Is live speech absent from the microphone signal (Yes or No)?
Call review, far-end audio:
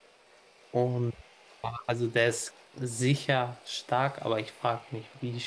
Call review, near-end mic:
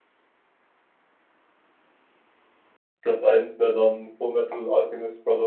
No